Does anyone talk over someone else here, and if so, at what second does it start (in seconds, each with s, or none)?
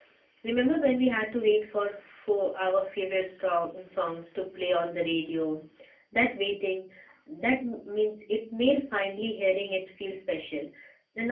none